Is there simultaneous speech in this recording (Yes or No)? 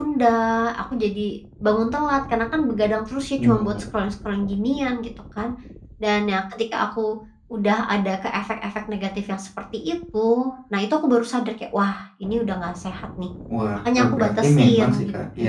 Yes